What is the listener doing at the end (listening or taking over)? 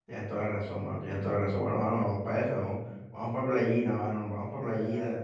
taking over